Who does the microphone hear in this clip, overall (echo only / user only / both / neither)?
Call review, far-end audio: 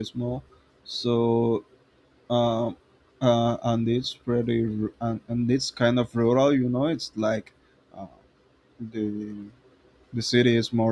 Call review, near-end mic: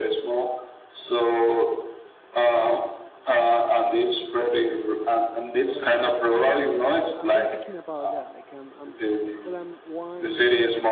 both